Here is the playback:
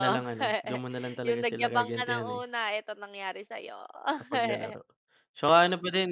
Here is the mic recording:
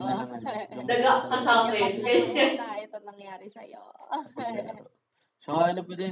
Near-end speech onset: 0.8 s

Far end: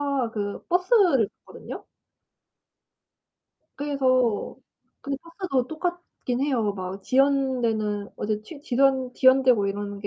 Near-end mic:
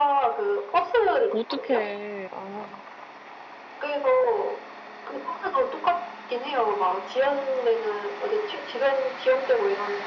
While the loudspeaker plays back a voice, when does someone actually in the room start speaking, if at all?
1.3 s

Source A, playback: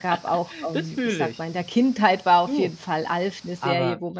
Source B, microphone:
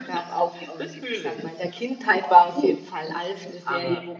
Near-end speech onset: none

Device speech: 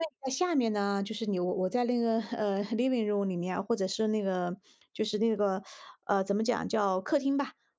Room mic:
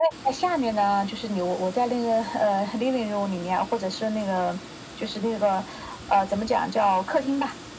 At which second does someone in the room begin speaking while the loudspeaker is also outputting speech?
none

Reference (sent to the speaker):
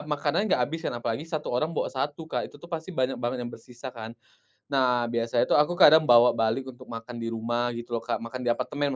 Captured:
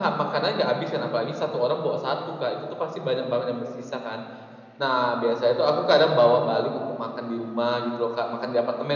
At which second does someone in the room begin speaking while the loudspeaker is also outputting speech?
none

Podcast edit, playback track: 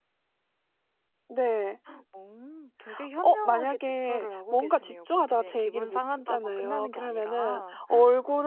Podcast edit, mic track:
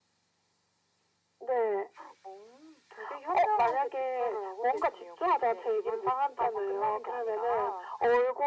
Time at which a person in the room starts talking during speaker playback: none

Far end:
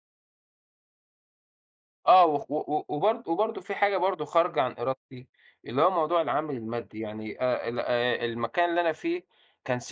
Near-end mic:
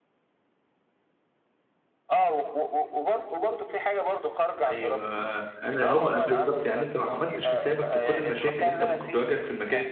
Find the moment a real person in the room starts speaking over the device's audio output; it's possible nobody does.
4.7 s

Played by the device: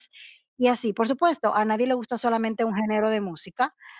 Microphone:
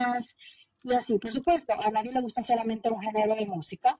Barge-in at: none

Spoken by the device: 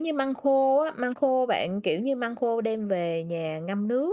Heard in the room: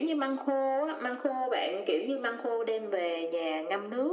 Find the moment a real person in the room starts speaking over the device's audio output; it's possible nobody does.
none

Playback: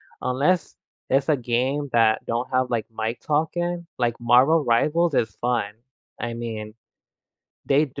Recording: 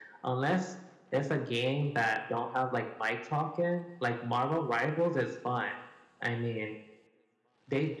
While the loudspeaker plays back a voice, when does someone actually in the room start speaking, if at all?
none

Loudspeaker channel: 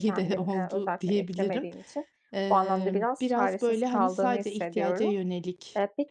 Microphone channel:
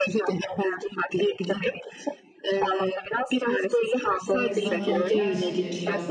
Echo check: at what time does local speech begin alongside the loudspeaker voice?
4.4 s

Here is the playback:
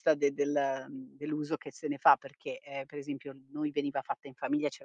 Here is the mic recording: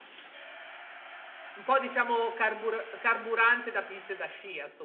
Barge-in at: 1.5 s

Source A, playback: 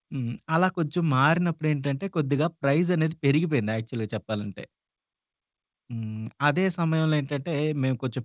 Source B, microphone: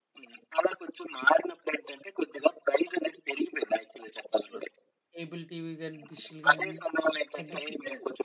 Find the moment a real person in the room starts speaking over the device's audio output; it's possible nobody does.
4.3 s

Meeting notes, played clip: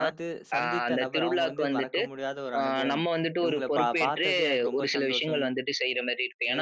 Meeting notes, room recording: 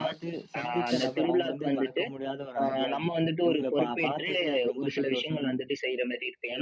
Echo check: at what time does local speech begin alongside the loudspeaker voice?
none

